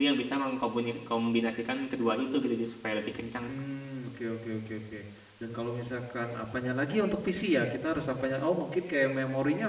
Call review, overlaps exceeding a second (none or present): none